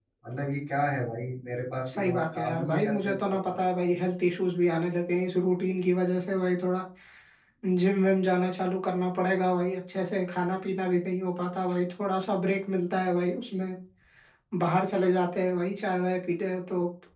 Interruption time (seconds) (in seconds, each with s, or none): 1.9 s